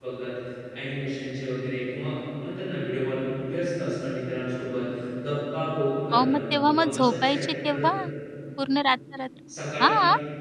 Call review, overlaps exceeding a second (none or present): present